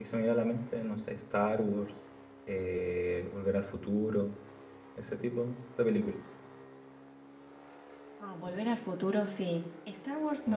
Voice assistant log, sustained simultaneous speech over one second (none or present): none